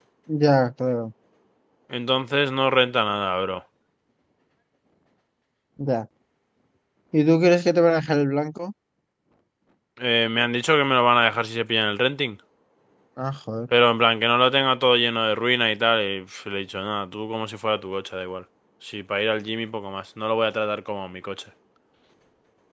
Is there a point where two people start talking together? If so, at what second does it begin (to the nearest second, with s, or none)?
none